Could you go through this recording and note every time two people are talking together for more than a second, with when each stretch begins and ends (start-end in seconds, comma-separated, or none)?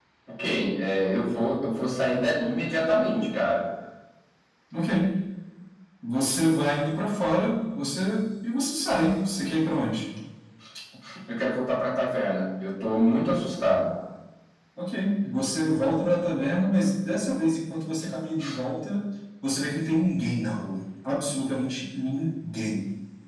none